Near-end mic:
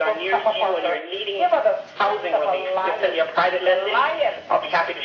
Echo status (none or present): present